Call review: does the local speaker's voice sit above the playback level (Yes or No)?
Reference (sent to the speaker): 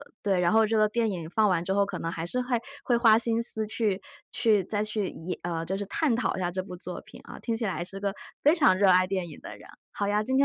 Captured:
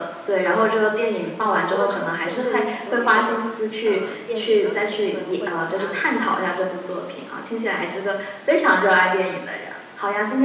No